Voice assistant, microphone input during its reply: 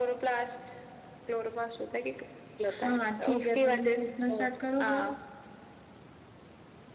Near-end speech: present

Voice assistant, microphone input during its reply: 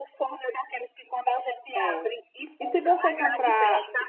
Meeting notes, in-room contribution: present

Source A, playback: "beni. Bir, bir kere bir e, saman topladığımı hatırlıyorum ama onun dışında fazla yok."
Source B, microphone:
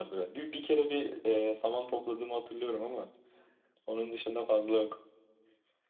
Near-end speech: none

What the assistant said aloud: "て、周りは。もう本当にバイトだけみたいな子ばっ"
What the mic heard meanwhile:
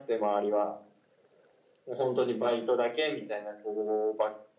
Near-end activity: none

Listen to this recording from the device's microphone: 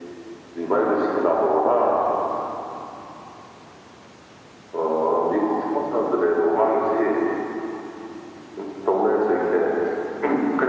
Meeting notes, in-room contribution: none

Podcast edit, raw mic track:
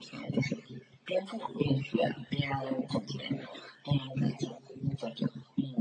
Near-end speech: none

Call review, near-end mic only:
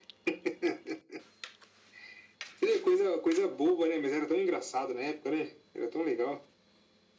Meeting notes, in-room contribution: none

